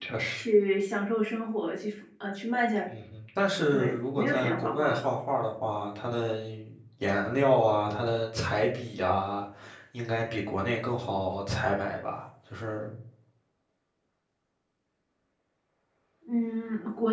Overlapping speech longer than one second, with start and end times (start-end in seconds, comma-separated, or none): 3.7-5.1